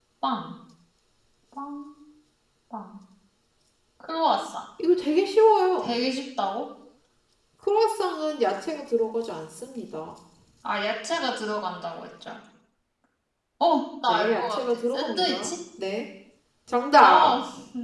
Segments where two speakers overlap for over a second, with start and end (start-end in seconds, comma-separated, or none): 14.1-15.5